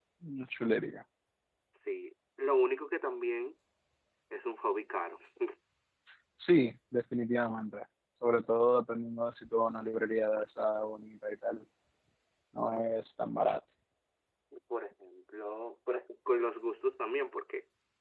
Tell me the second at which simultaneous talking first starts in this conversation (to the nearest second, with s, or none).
none